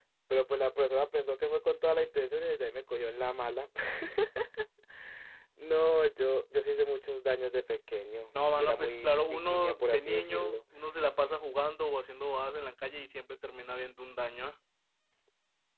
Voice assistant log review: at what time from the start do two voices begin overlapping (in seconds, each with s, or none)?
8.6 s